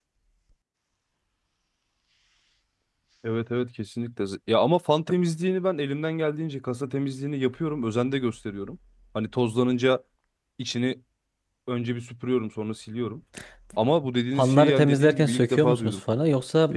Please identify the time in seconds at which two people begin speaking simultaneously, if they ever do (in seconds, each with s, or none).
14.4 s